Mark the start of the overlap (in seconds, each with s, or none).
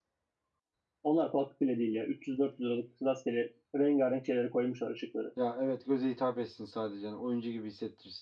none